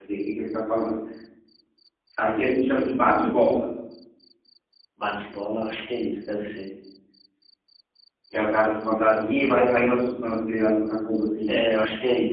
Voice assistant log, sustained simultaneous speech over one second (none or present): none